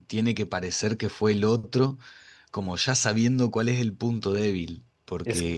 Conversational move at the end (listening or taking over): listening